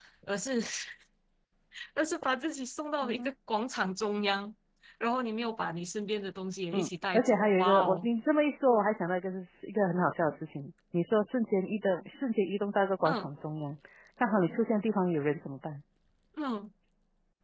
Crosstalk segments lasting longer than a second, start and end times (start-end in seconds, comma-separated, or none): 6.7-8.1